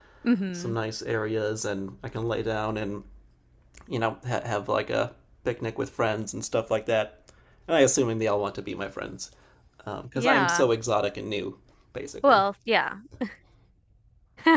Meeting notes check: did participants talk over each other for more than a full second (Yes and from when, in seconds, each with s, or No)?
No